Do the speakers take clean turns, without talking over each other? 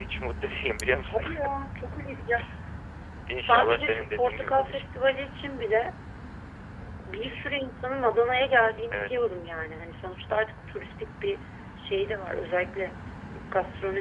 No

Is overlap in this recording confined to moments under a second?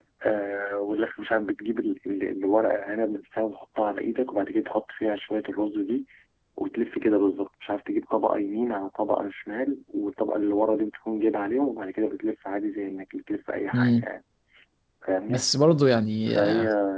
Yes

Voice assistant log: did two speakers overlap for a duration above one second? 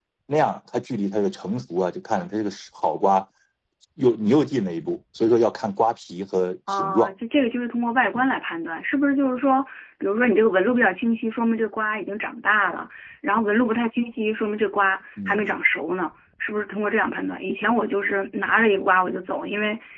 No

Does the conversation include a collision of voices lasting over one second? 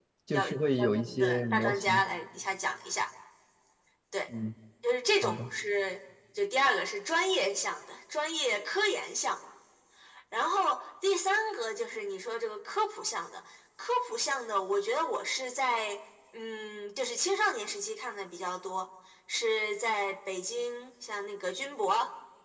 Yes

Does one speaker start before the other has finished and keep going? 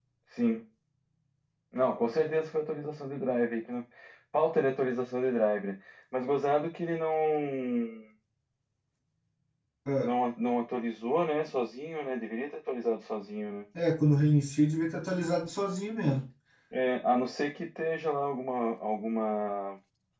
No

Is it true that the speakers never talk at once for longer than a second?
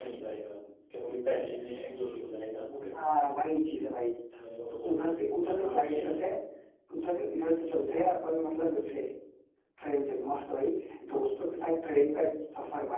No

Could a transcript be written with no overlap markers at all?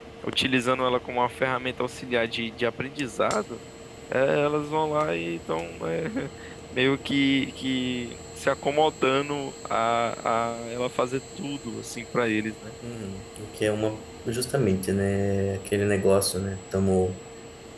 Yes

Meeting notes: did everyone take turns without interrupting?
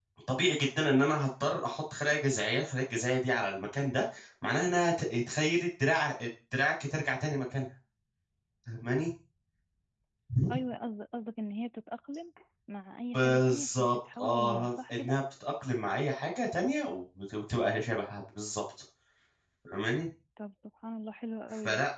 No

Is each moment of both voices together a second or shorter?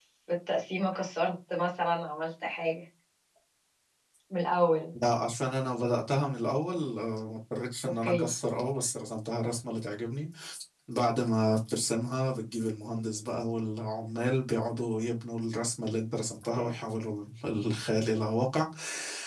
Yes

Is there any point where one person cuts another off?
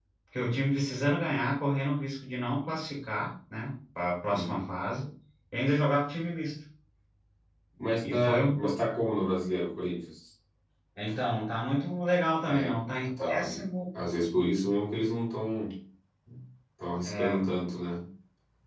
Yes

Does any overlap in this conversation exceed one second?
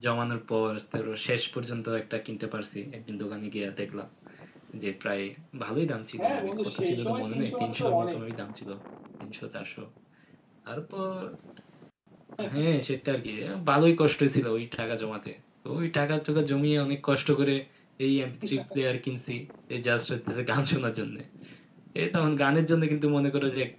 Yes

